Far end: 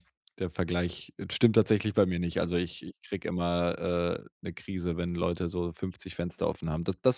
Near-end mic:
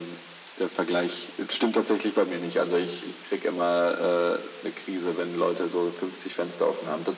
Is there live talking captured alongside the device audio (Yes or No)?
No